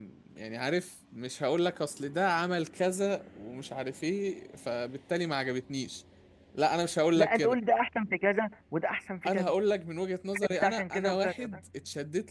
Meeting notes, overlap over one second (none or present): present